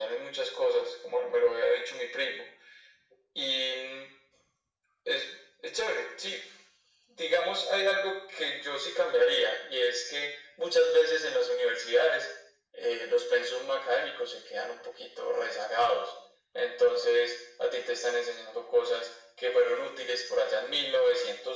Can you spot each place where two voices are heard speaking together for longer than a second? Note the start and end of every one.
none

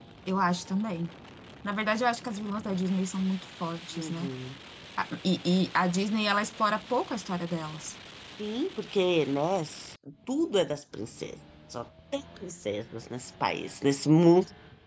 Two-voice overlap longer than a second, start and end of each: none

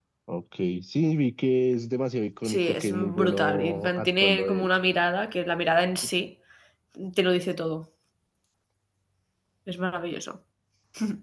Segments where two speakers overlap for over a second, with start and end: 2.4-4.7

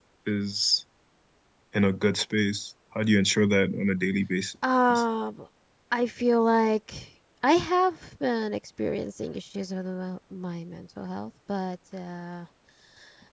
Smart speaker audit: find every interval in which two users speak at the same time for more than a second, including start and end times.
none

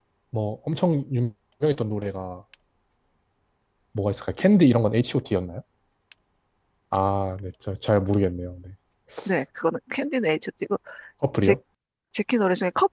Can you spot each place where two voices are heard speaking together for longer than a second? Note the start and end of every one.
none

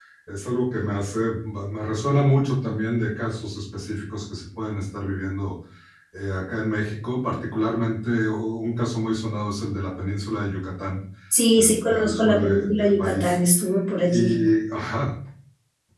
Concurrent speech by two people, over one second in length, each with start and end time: 11.6-13.3

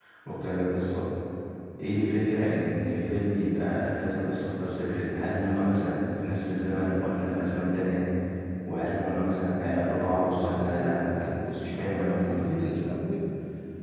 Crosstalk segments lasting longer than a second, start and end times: 10.0-12.6

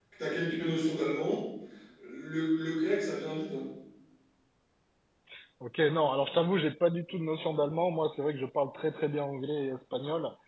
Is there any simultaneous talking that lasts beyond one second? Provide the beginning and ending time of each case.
none

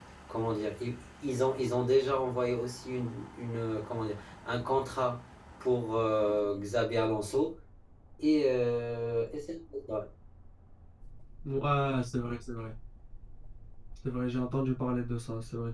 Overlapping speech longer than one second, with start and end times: none

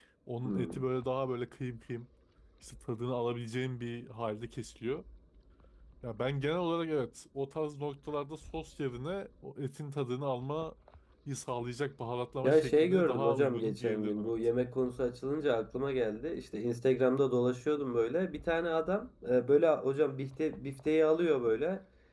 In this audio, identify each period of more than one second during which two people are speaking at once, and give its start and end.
12.4-14.3

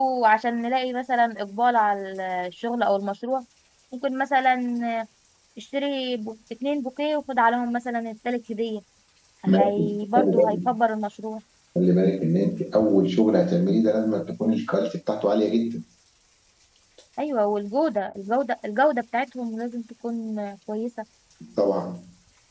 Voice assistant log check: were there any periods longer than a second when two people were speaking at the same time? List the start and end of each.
9.5-10.7

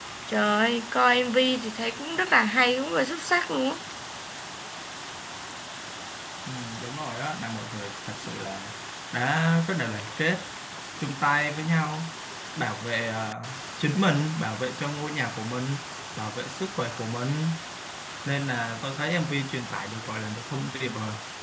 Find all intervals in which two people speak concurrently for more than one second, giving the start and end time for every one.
none

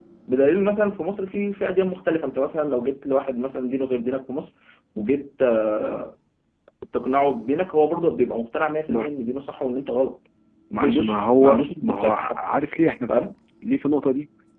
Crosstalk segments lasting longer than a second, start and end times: 10.8-12.5

